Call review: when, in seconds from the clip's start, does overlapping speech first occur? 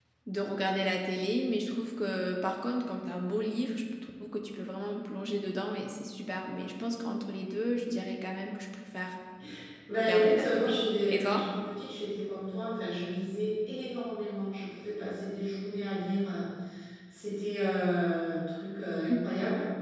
10.0 s

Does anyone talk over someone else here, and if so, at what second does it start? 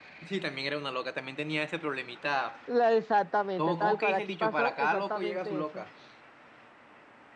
3.6 s

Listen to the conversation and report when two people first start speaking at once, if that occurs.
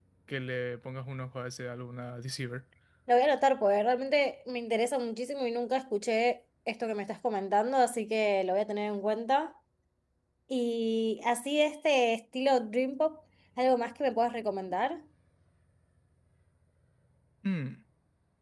none

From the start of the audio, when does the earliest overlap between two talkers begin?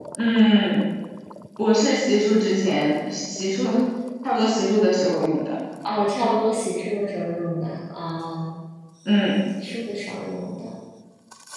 none

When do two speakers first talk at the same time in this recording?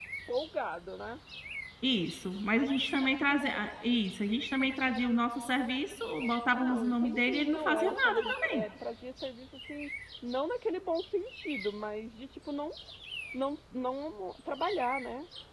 6.6 s

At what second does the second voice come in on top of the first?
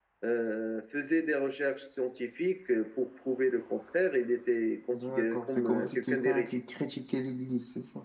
4.9 s

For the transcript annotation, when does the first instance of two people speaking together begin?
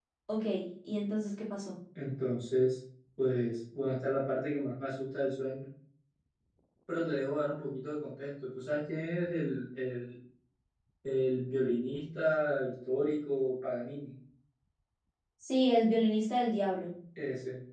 none

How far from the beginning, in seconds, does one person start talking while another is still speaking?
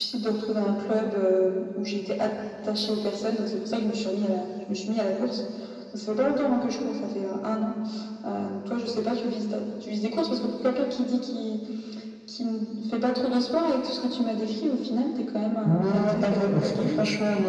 15.6 s

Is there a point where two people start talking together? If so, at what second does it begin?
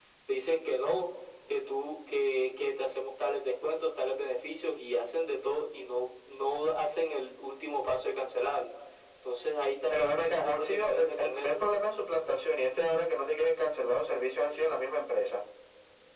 9.9 s

